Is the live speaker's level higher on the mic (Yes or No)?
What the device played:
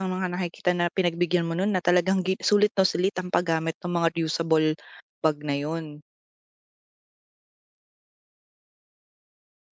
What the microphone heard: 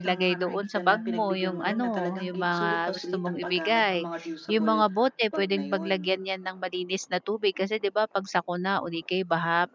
Yes